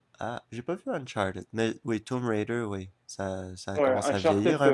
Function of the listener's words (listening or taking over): taking over